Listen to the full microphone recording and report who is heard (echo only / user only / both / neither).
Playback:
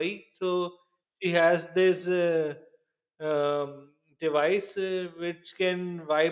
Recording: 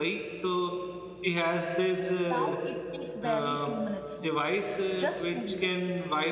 both